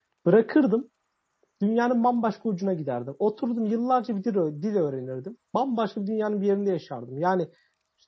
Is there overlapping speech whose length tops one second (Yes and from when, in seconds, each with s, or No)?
No